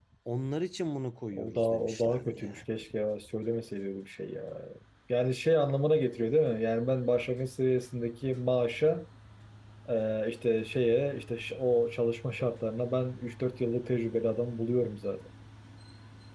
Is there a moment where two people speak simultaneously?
Yes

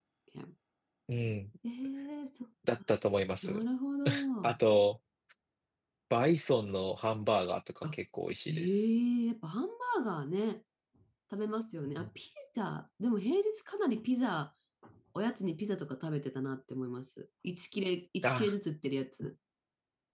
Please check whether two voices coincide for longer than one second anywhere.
No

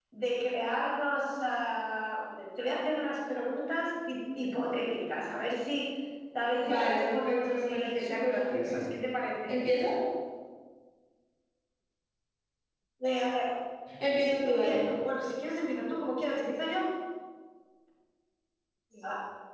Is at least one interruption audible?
Yes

